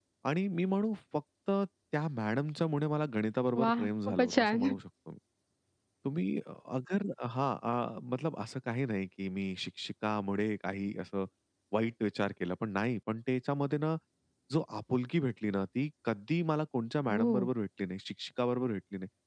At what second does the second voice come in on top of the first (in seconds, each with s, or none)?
3.6 s